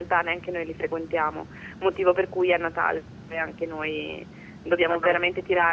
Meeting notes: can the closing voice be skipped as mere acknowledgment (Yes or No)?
Yes